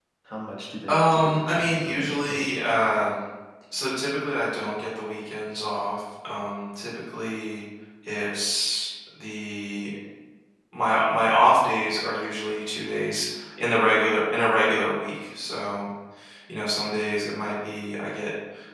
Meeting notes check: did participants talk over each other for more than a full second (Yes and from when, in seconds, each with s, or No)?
Yes, from 0.9 s